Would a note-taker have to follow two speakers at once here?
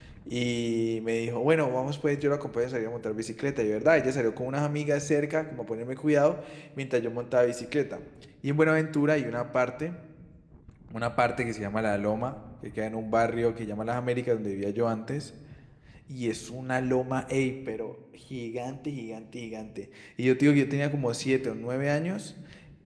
No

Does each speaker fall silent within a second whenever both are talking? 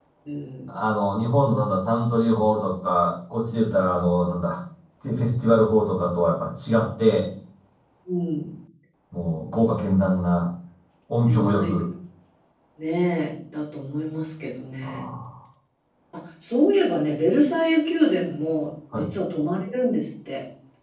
Yes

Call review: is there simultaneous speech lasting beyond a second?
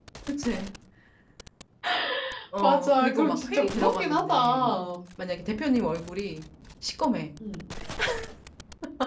Yes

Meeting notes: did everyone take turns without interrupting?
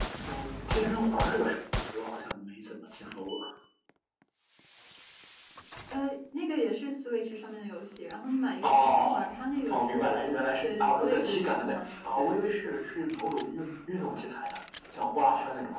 No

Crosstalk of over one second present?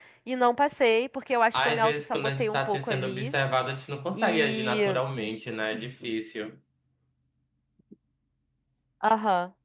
Yes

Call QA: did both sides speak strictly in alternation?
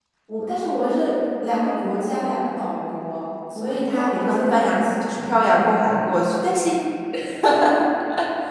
No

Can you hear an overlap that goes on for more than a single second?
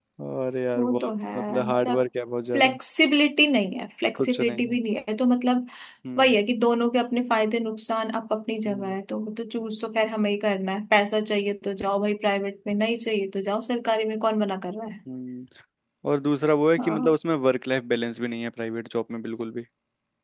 Yes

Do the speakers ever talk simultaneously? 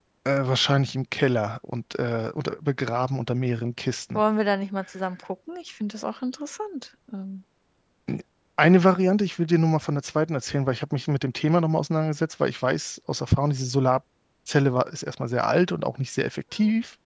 No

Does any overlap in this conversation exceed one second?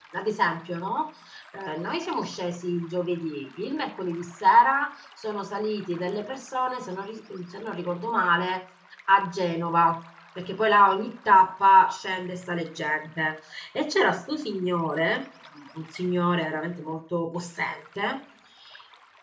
No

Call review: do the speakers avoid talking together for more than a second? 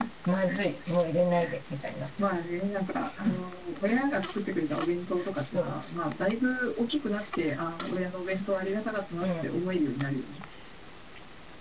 Yes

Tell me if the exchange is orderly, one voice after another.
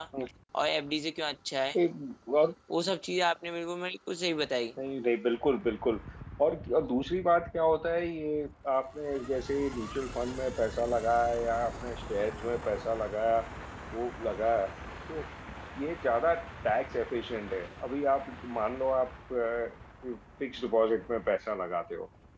Yes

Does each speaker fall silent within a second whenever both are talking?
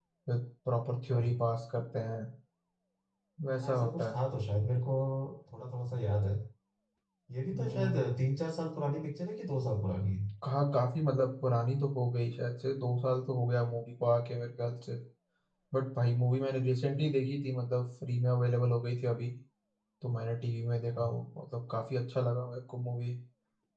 Yes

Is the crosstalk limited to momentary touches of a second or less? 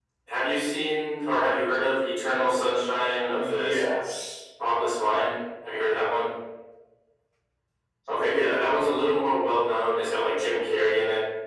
Yes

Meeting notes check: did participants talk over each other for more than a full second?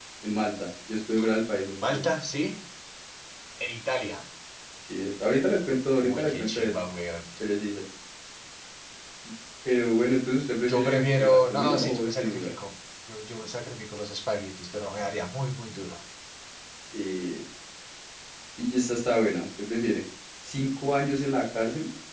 Yes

